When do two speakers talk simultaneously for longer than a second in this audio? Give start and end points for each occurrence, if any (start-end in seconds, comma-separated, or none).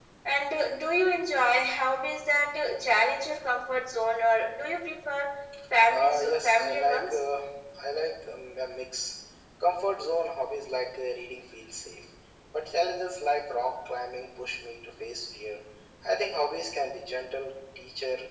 5.9-7.2